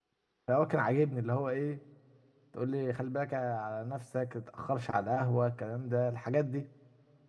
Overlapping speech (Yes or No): No